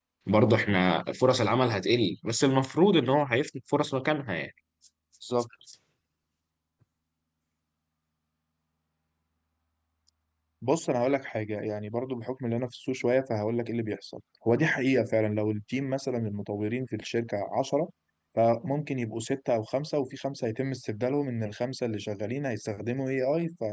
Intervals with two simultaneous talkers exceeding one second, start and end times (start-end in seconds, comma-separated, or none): none